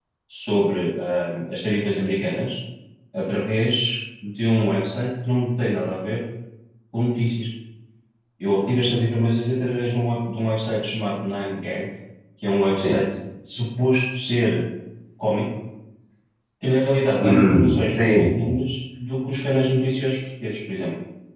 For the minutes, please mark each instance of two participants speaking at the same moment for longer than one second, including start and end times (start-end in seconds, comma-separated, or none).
17.2-18.5